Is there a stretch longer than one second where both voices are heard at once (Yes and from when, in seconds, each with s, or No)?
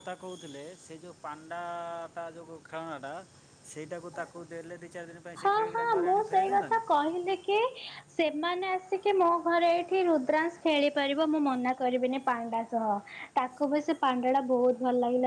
Yes, from 5.4 s